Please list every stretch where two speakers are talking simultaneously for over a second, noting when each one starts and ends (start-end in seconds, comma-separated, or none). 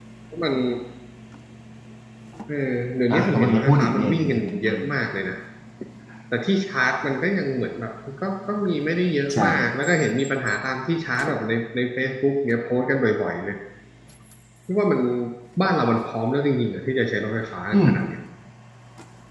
3.1-4.8